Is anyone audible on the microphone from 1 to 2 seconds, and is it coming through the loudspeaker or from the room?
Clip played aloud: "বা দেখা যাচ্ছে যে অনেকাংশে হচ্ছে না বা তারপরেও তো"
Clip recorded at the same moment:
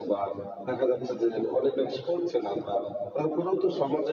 echo only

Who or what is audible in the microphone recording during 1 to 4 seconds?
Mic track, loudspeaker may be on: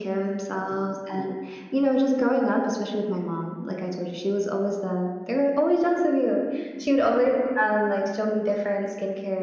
echo only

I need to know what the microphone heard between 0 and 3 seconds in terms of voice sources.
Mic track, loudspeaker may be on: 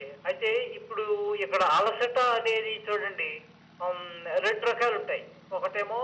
echo only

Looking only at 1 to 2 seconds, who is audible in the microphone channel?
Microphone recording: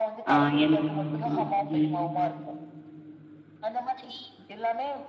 both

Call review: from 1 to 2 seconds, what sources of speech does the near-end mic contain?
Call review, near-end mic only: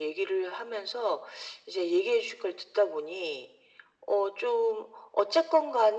echo only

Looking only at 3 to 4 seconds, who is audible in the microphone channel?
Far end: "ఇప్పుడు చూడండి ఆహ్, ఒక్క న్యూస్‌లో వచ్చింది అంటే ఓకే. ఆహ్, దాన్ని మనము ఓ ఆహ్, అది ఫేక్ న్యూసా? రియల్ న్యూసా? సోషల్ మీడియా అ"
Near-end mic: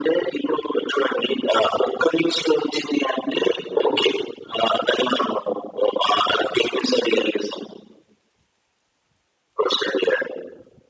echo only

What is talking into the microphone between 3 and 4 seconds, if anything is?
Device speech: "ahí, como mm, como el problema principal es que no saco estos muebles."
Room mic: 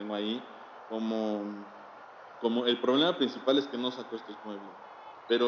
echo only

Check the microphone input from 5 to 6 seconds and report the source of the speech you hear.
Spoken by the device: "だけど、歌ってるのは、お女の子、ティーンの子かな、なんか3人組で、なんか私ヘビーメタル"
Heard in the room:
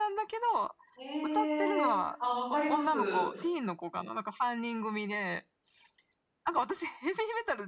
echo only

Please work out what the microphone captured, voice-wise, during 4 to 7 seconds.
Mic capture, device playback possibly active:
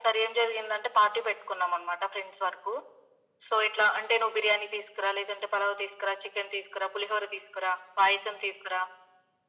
echo only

